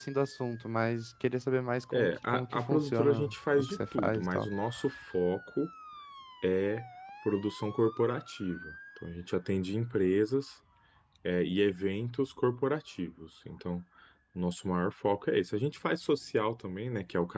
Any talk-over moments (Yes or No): Yes